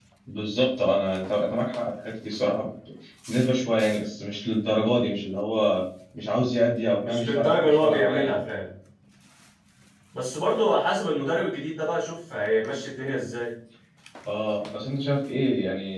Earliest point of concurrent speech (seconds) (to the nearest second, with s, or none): 7 s